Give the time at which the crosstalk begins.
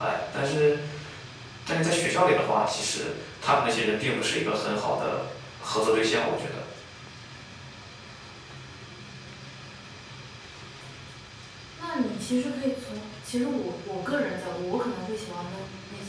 none

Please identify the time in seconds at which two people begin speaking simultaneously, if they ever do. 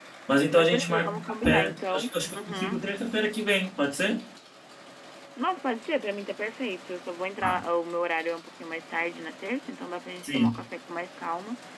1 s

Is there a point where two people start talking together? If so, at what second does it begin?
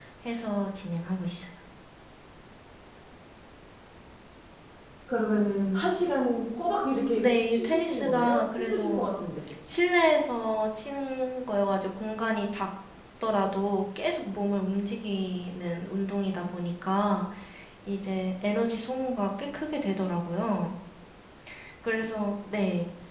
7 s

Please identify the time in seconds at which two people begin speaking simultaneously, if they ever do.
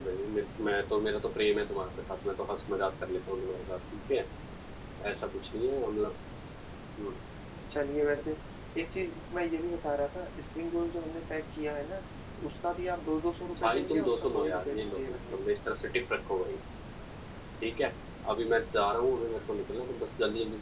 13 s

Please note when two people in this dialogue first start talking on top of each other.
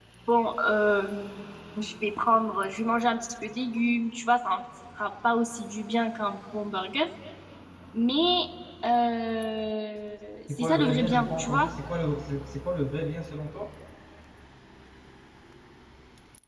10 s

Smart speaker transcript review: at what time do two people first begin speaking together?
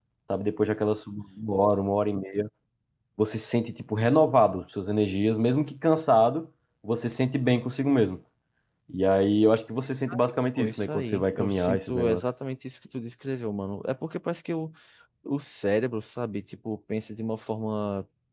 10 s

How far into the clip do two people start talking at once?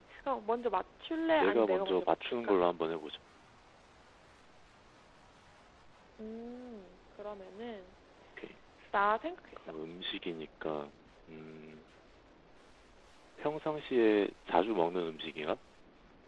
1 s

